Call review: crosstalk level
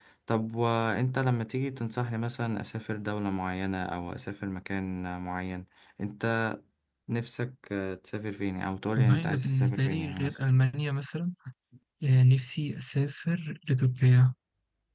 present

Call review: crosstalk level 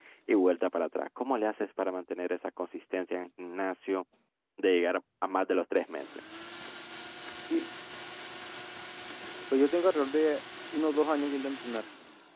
none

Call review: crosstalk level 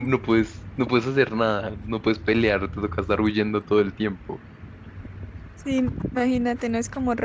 none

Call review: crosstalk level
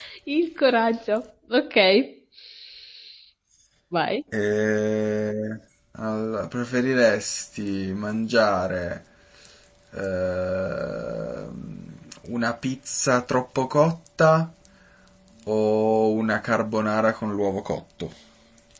none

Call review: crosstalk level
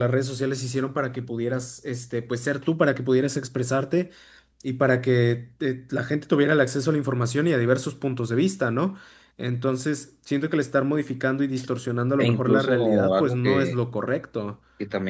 present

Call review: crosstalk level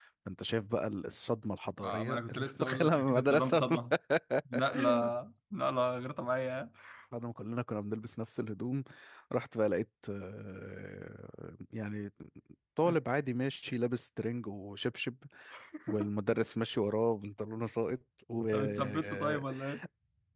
present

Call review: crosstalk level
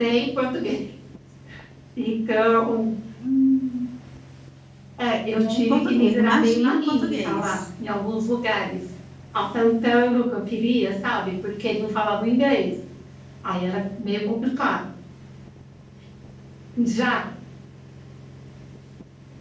present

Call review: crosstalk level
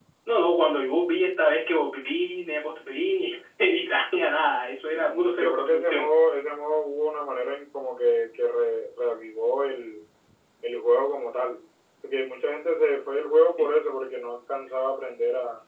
present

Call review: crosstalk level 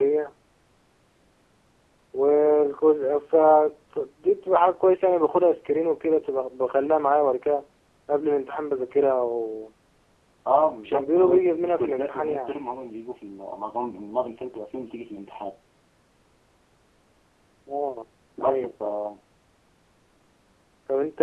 present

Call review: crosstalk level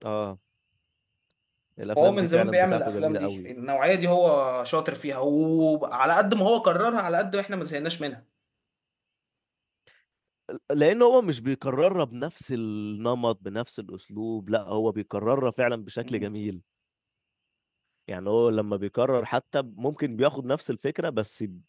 present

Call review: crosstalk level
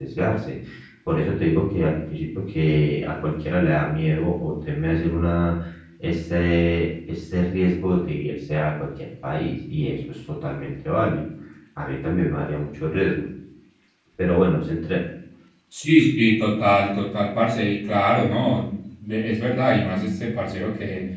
none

